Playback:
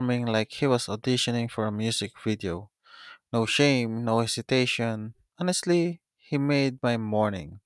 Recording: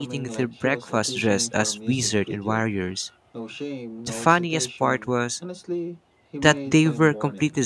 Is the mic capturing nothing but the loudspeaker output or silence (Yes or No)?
No